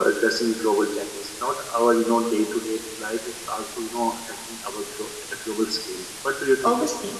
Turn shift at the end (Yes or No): Yes